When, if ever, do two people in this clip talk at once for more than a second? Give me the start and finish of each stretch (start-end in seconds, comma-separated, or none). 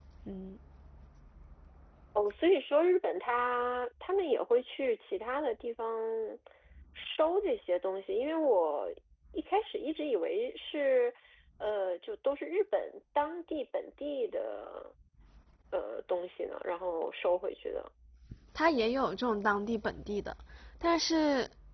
none